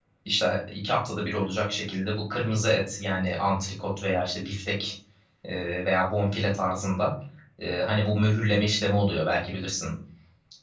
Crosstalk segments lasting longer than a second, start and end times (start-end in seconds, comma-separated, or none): none